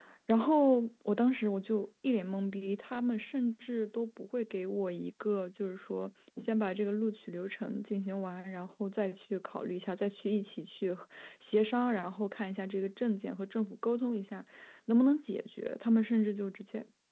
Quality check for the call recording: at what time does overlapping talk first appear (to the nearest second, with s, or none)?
none